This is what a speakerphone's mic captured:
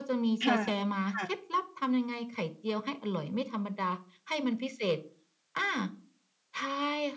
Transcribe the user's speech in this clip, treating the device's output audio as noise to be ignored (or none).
ค่ะ ค่ะ